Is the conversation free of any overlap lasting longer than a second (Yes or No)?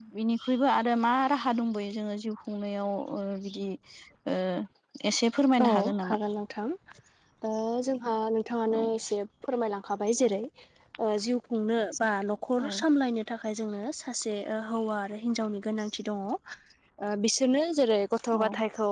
Yes